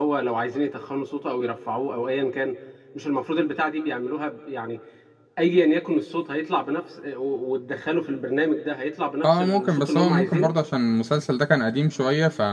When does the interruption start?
9.2 s

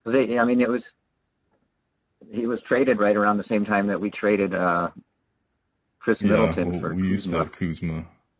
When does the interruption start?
6.2 s

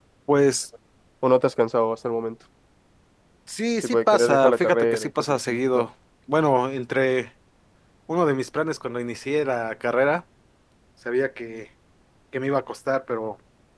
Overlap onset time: 3.8 s

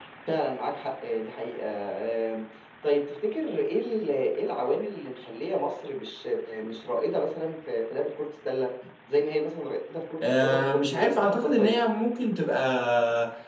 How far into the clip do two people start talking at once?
10.2 s

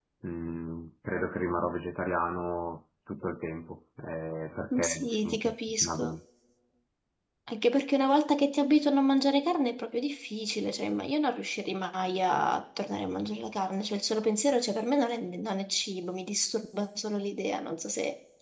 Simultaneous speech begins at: 4.7 s

